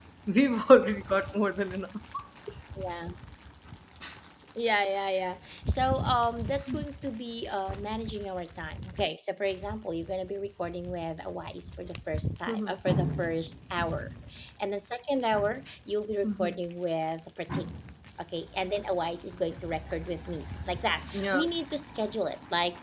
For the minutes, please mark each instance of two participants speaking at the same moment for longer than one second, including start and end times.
none

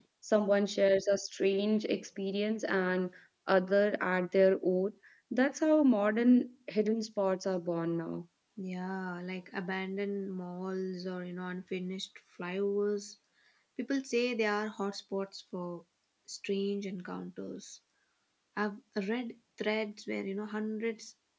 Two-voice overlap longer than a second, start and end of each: none

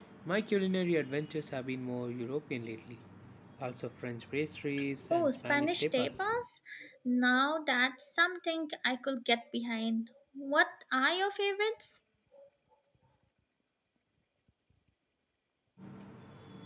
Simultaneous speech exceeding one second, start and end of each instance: 5.1-6.3

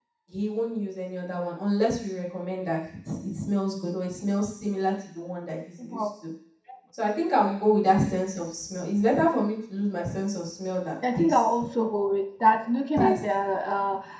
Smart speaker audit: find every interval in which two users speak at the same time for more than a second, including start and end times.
none

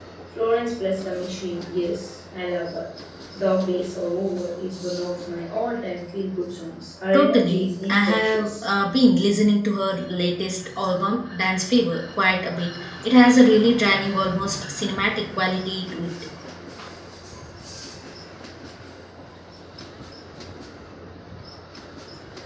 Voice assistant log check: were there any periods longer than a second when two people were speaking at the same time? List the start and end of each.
7.1-8.7

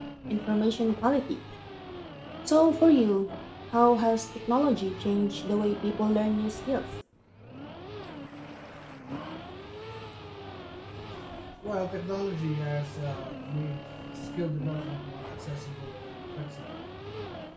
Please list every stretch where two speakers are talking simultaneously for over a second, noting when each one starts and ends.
none

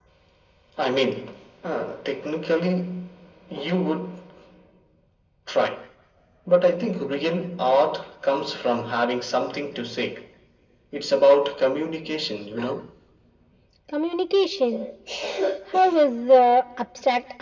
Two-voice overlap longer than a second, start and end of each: none

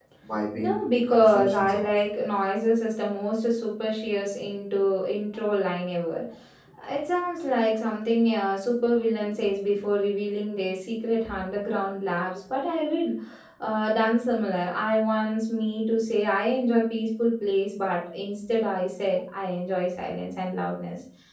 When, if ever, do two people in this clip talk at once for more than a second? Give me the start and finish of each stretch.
0.6-1.8

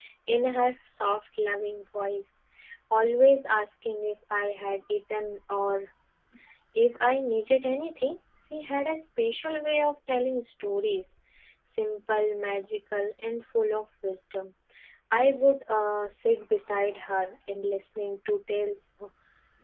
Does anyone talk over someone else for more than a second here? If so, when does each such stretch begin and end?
none

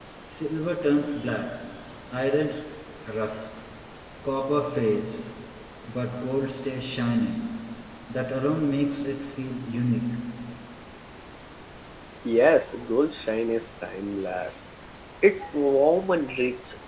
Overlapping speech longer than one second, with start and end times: none

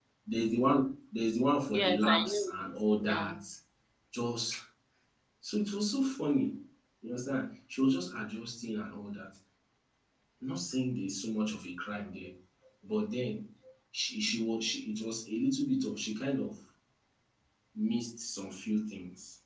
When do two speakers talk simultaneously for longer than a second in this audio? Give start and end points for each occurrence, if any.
1.7-3.4

